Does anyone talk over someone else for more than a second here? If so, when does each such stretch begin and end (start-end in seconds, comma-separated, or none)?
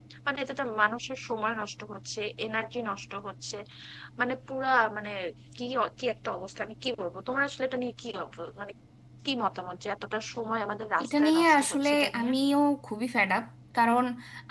11.0-12.3